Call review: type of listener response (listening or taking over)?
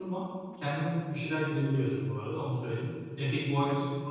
taking over